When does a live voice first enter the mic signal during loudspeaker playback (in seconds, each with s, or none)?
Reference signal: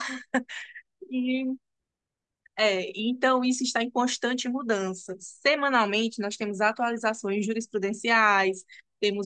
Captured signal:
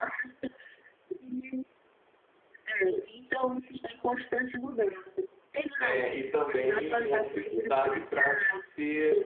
5.8 s